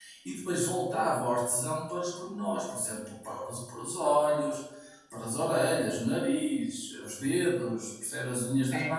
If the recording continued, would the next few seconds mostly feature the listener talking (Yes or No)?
No